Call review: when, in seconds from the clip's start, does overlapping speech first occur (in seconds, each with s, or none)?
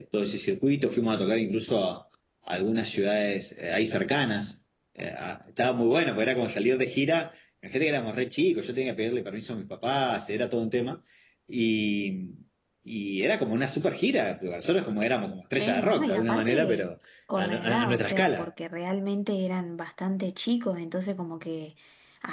15.6 s